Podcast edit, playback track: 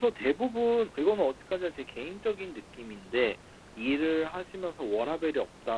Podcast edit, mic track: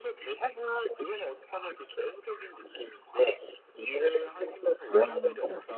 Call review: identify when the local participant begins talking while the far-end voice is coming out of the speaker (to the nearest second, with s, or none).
5 s